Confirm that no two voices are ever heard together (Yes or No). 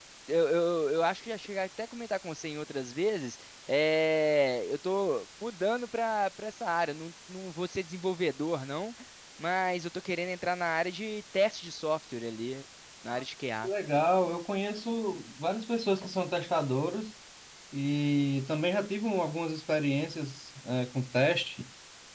Yes